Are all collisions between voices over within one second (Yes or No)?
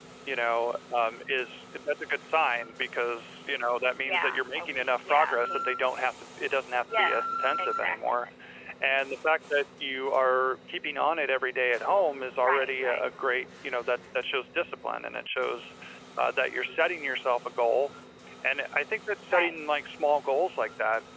No